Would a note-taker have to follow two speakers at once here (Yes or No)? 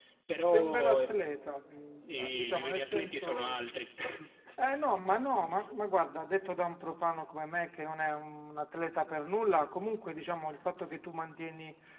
Yes